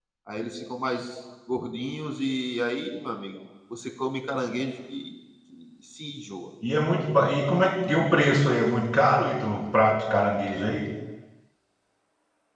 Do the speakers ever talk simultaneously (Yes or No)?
No